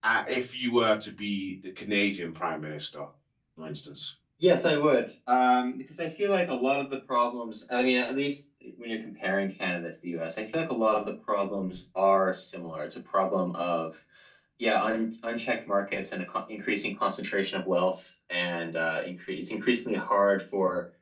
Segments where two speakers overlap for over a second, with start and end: none

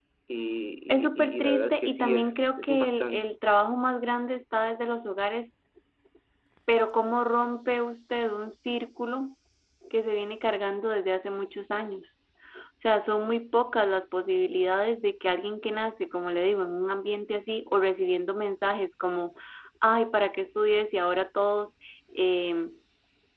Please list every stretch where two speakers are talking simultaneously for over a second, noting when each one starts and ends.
0.9-3.3

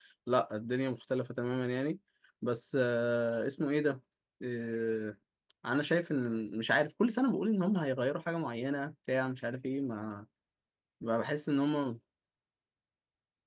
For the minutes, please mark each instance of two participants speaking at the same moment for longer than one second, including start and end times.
none

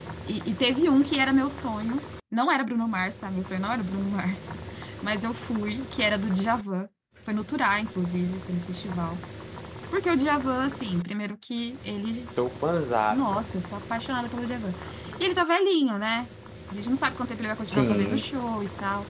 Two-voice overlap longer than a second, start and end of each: none

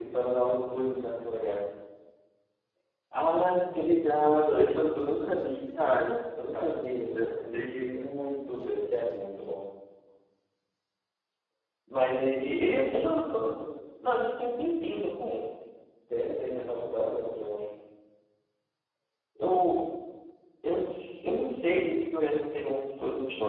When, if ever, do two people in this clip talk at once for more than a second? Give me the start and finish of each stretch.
6.5-8.0

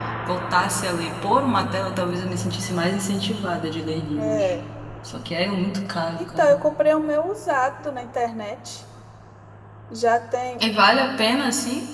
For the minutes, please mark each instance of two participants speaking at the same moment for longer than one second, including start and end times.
none

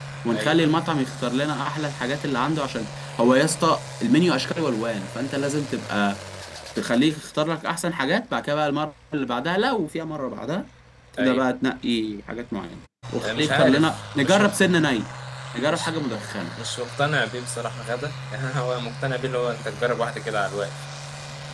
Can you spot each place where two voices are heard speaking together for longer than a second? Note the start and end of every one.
13.2-14.5

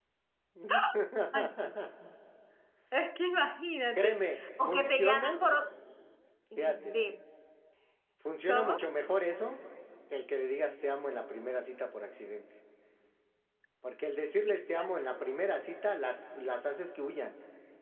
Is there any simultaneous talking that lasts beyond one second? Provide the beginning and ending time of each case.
4.0-5.4

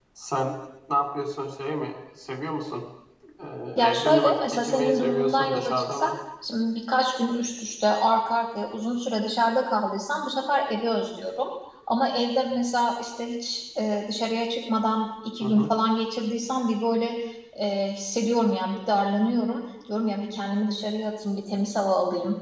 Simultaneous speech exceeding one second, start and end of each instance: 3.8-6.1

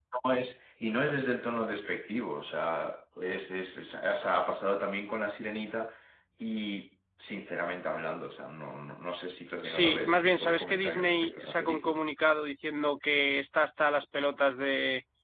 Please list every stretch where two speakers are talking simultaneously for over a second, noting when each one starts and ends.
9.6-12.0

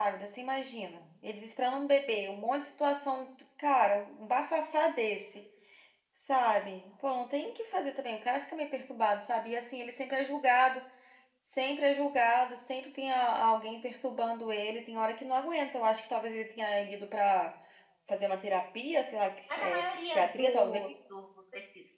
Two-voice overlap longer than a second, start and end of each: 19.5-20.8

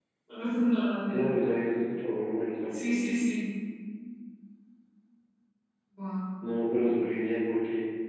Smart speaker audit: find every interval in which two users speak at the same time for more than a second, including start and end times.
none

